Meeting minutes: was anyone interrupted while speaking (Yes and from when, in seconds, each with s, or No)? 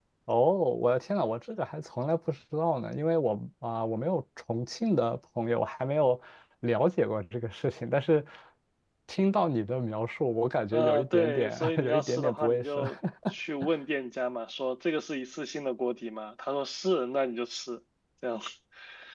Yes, from 10.7 s